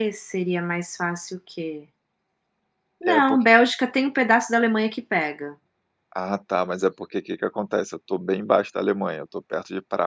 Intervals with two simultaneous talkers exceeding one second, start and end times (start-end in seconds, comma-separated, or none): none